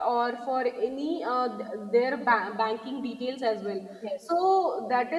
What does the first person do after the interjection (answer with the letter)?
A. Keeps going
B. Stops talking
A